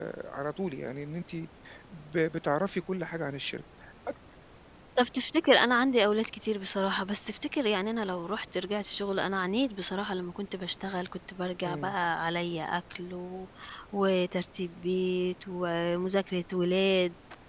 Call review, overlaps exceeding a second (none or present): none